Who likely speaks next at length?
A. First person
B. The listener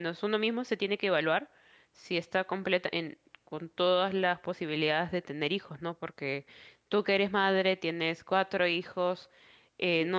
A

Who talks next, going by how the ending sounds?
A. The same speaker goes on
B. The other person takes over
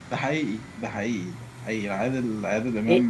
B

